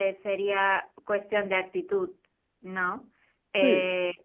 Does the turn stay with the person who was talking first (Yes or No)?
Yes